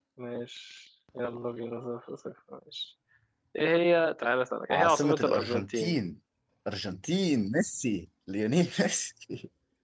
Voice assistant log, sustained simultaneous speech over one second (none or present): present